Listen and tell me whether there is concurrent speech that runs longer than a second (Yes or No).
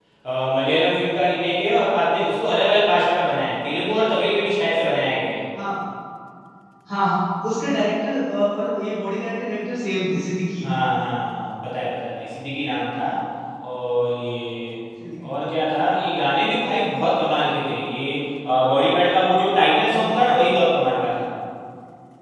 No